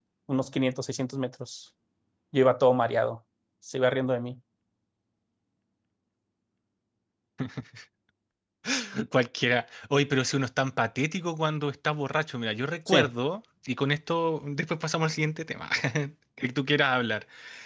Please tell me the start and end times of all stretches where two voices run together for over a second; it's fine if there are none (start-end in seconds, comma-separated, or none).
none